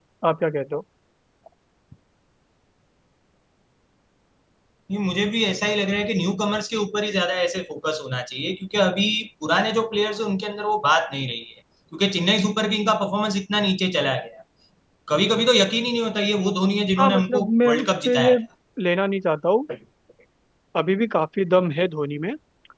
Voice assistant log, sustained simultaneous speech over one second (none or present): present